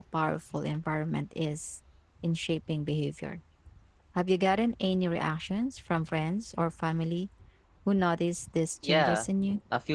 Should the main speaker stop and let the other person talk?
Yes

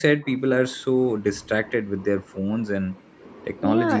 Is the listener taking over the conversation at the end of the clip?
Yes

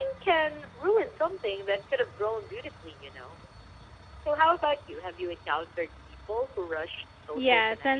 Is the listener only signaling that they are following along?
No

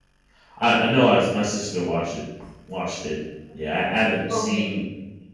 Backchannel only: Yes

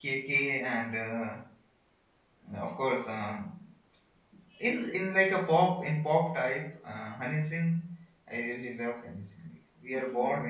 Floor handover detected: No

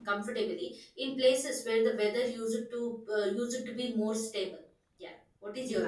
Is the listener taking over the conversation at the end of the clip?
Yes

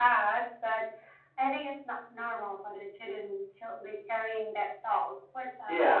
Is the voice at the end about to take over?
Yes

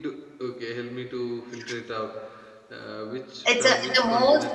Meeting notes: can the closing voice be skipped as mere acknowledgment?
No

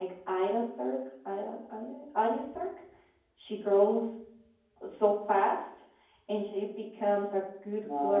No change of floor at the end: Yes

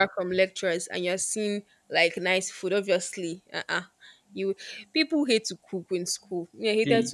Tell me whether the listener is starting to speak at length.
Yes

